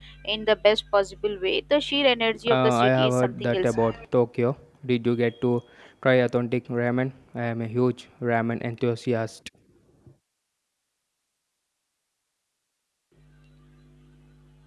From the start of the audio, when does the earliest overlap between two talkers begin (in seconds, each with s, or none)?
2.5 s